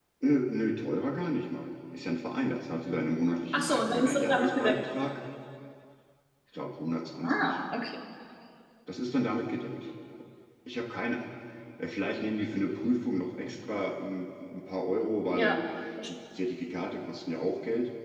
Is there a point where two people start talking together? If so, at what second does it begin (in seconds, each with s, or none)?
3.5 s